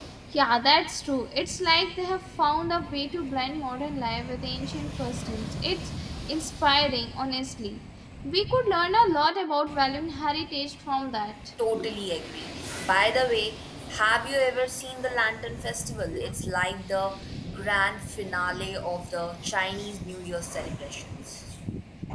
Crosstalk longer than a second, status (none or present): none